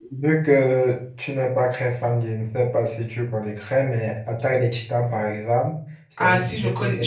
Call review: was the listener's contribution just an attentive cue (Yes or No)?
No